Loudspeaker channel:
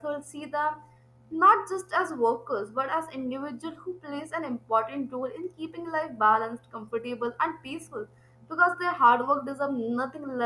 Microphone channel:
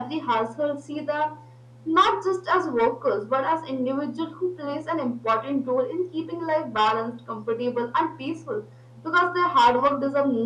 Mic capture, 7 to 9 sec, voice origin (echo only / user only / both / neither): echo only